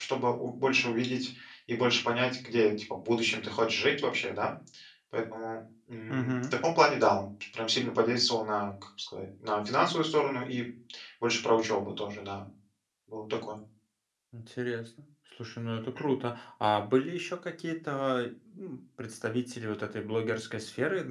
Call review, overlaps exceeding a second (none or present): none